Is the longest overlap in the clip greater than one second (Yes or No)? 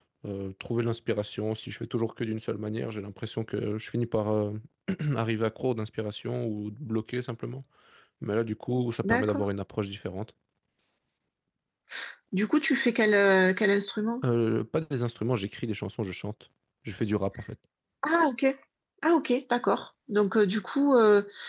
No